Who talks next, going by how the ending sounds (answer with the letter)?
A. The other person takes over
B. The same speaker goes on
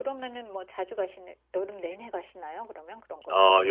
A